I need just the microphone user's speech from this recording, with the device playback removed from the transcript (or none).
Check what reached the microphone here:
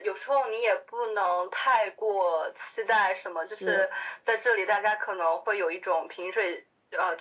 是，